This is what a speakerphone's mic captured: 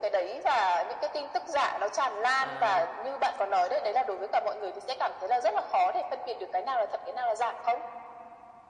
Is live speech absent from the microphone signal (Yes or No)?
No